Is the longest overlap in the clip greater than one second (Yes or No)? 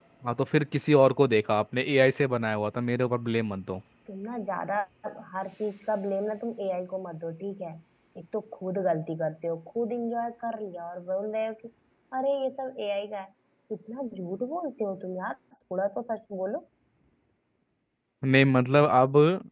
No